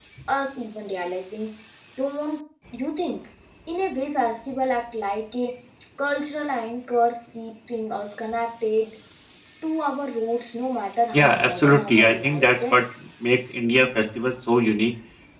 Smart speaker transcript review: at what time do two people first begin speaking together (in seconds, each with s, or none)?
11.1 s